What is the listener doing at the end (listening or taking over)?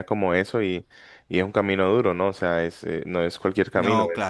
listening